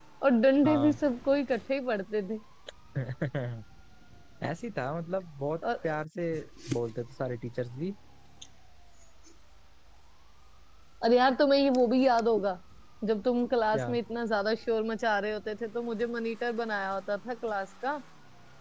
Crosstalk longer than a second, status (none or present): none